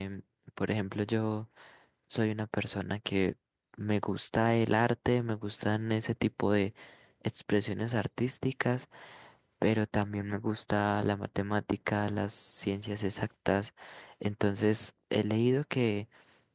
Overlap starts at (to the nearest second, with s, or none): none